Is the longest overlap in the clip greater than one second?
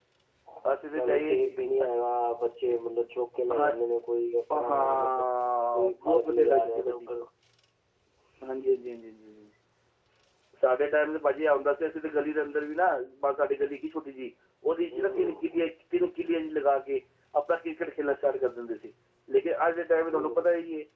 Yes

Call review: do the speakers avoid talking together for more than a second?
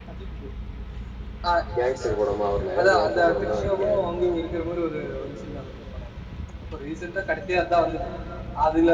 No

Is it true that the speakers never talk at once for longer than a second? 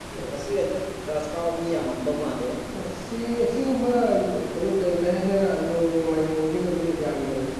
Yes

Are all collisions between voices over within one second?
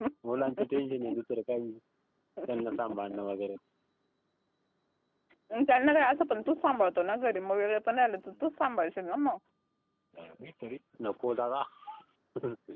Yes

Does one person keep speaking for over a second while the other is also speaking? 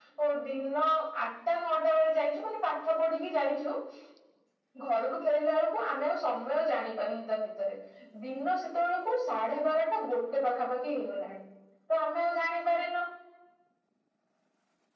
No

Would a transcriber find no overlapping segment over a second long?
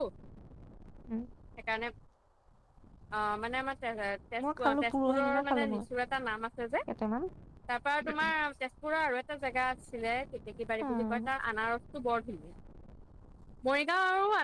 No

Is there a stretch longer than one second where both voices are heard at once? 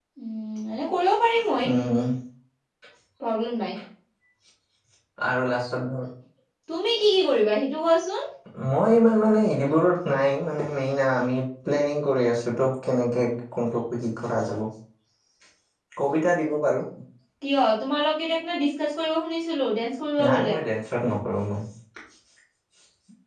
No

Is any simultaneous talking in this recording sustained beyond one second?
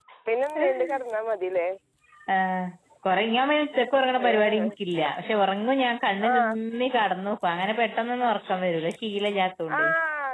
No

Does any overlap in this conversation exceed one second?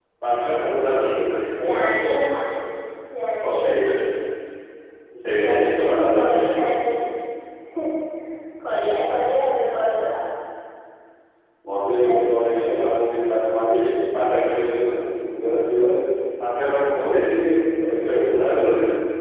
Yes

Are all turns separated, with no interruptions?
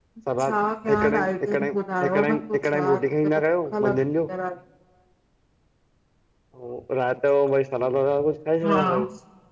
No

